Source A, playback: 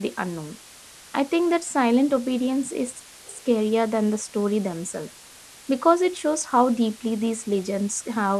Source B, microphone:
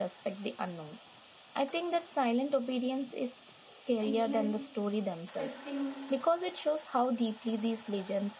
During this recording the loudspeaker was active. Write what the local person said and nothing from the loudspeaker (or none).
And even expecting